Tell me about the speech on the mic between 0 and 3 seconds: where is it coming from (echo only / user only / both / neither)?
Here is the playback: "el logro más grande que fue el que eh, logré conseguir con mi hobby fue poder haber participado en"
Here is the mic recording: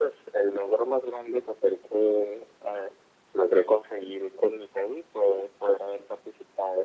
echo only